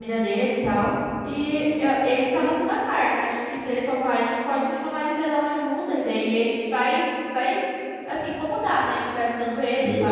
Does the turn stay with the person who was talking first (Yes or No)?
No